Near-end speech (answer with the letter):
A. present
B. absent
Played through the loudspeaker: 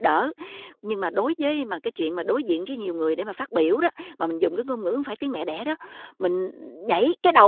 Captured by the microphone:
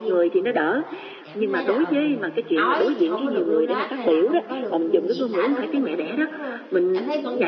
A